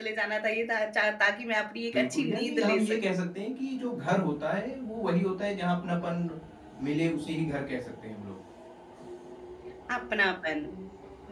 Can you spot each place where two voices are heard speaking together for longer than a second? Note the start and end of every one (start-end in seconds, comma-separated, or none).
1.9-3.2